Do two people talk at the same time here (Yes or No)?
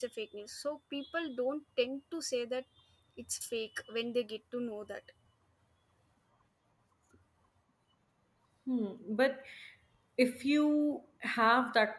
No